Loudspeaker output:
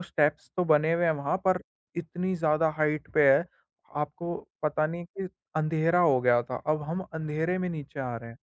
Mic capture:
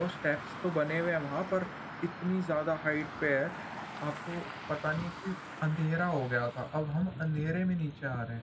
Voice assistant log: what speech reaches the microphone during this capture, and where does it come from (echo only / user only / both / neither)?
echo only